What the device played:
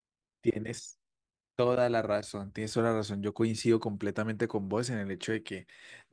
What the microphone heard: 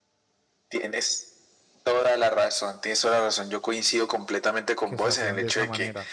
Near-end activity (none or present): present